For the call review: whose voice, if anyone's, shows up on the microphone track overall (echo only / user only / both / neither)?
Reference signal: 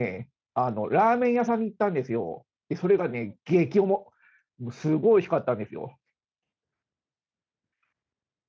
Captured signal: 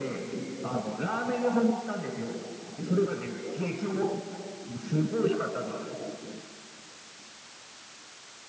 echo only